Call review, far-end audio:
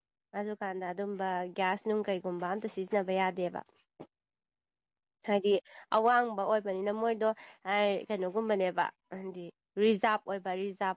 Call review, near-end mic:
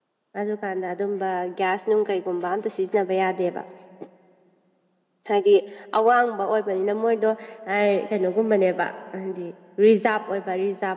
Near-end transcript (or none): none